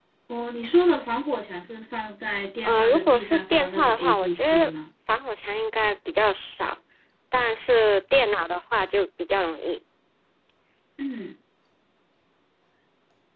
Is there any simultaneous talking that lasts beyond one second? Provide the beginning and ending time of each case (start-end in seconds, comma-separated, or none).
2.6-4.7